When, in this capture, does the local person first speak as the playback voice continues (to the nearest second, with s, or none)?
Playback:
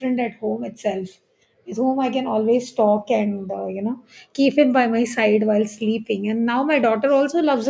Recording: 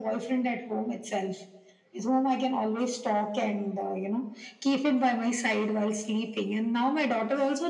none